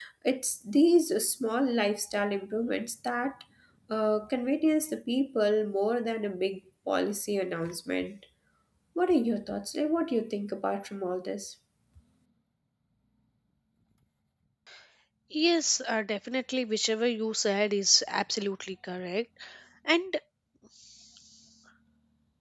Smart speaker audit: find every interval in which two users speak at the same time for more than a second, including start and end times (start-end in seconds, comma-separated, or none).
none